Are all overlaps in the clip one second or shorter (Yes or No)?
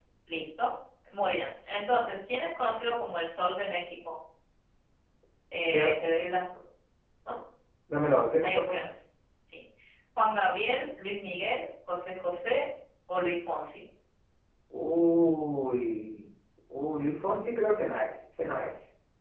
Yes